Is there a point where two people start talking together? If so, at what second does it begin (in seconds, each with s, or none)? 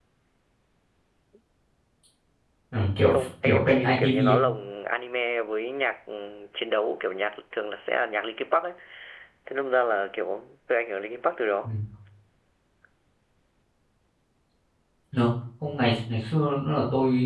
3.1 s